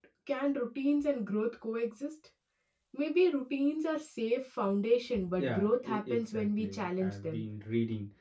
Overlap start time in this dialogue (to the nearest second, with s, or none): 5 s